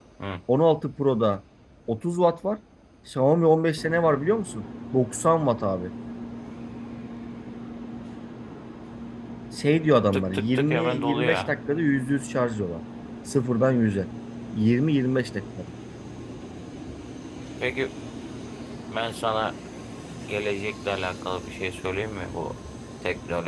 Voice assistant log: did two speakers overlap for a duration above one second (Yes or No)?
Yes